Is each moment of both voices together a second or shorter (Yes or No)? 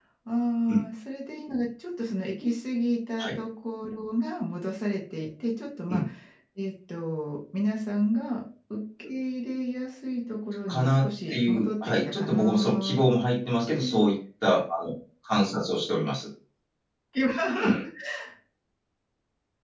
No